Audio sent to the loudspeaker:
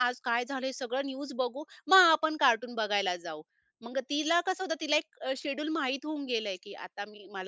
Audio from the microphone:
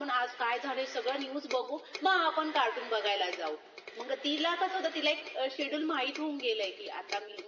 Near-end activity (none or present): none